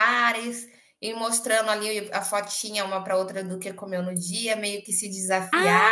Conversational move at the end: taking over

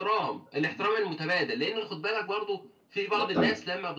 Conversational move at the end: listening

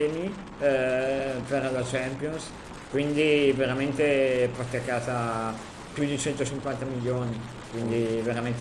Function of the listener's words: listening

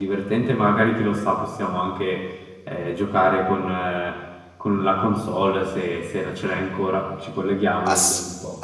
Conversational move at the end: taking over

